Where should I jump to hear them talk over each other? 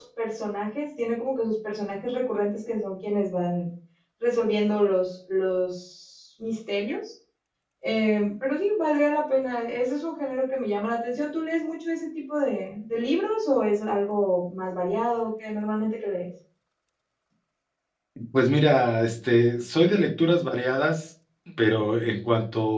none

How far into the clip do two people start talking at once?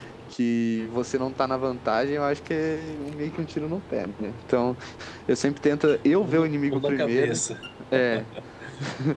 6.2 s

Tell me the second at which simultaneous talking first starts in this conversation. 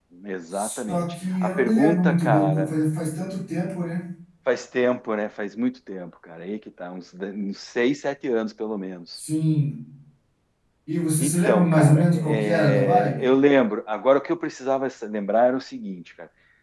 0.5 s

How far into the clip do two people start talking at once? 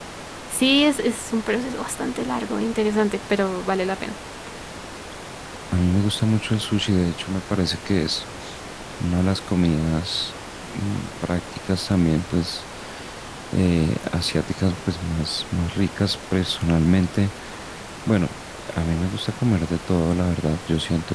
none

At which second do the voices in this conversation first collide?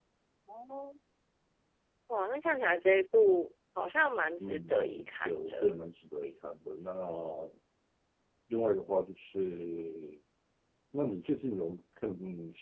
4.4 s

